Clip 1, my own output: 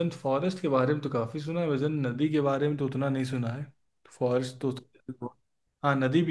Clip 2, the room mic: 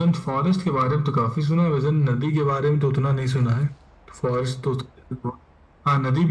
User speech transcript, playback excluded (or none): none